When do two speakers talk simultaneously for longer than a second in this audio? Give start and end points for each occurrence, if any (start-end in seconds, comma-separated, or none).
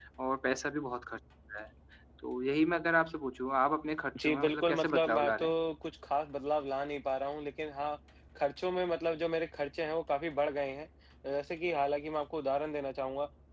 4.2-5.5